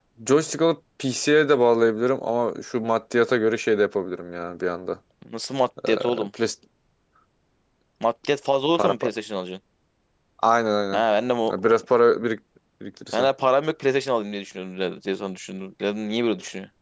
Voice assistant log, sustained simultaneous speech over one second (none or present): none